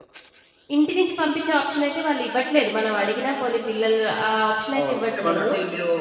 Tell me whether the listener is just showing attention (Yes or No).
No